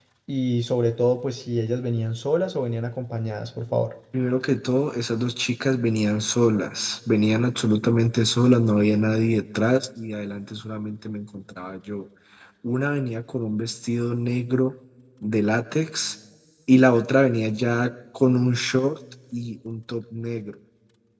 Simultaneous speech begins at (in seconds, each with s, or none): none